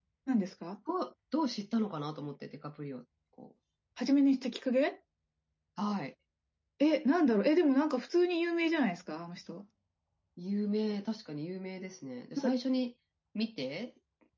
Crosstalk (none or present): none